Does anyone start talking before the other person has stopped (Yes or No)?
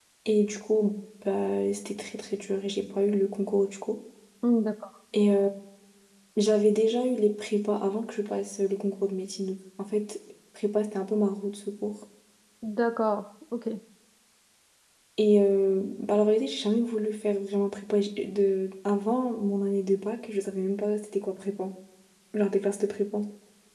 No